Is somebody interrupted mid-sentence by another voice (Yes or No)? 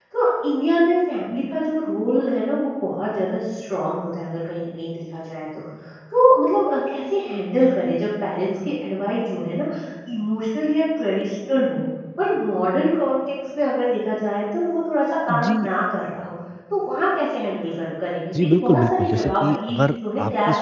Yes